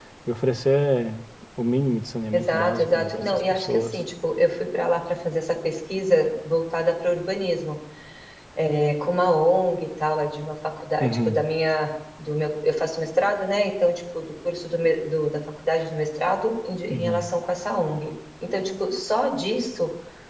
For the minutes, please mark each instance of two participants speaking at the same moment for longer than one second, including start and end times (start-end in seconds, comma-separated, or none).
2.3-4.0